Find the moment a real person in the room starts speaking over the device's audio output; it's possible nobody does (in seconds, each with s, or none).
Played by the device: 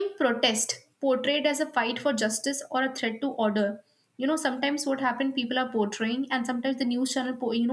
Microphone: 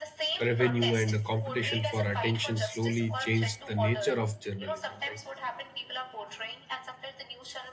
0.4 s